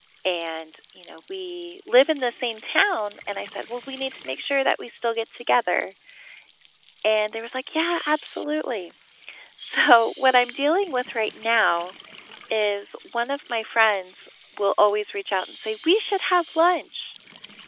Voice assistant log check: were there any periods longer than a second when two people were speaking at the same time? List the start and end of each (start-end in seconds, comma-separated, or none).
none